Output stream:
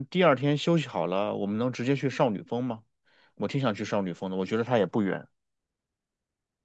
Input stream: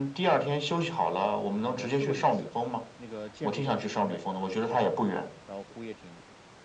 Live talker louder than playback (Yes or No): No